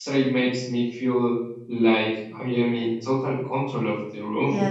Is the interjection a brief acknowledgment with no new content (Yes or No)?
No